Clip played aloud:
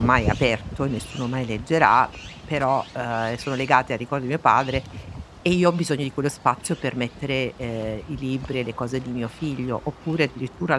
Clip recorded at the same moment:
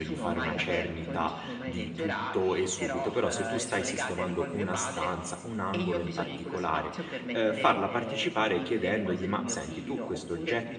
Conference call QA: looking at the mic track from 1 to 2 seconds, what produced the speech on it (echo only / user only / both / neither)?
both